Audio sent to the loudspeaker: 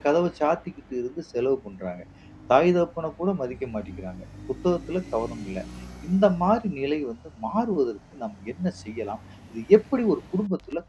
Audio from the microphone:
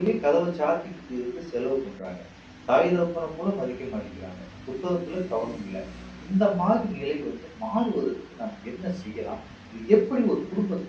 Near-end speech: none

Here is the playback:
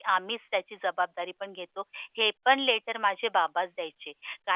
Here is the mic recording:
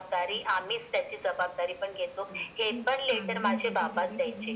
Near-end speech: present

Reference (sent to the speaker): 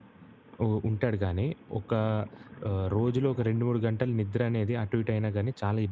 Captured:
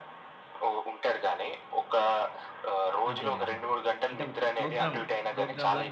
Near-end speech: present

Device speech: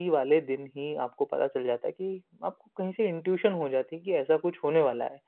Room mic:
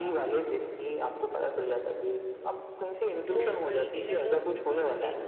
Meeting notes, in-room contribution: present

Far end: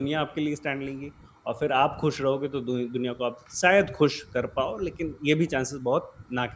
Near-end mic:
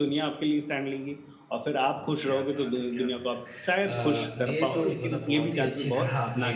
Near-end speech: present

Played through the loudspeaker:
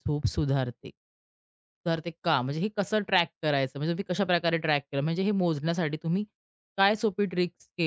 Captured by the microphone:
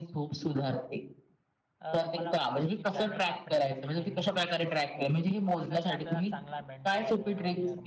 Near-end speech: present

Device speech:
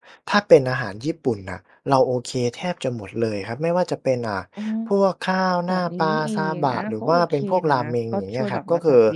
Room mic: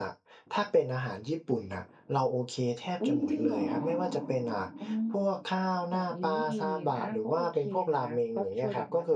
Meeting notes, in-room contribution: present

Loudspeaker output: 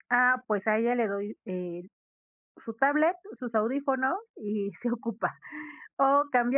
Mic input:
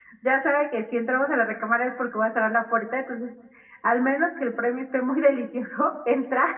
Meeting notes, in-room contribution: present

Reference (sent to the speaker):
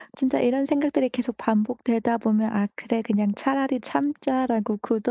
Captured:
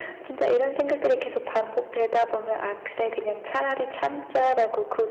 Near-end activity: none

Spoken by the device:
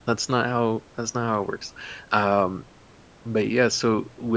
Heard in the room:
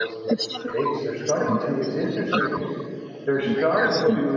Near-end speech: present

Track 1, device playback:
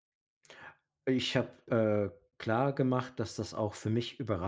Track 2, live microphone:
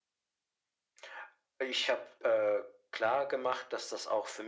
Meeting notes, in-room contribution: none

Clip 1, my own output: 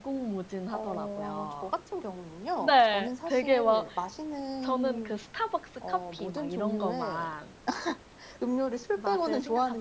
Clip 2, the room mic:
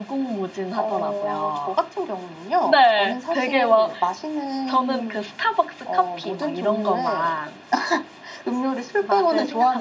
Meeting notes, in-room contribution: none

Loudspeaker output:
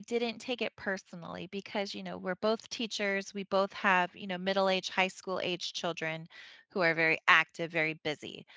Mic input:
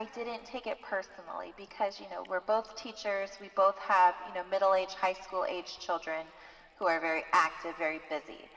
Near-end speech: none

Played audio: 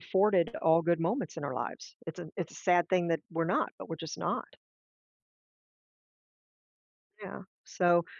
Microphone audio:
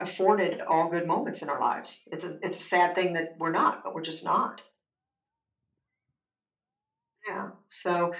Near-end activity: none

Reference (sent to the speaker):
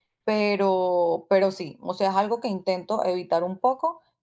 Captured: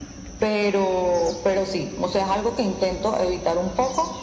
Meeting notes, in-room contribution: none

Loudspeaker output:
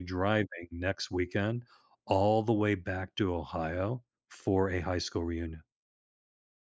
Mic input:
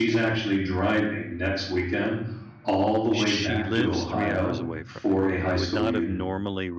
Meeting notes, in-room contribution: present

